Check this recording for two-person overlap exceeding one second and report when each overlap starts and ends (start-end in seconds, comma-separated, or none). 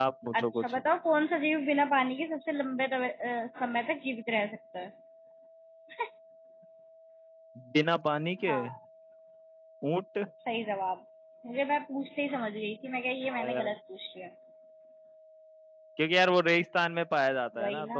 none